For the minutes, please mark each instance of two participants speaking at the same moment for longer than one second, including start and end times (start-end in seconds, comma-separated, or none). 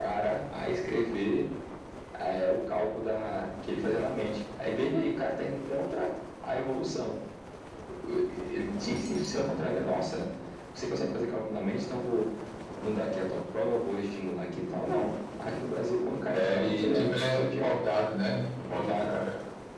16.3-17.8